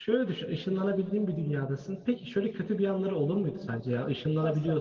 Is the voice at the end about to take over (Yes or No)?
No